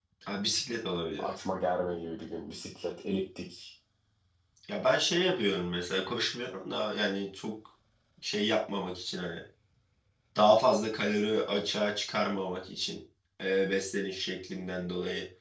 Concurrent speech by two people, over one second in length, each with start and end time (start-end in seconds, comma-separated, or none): none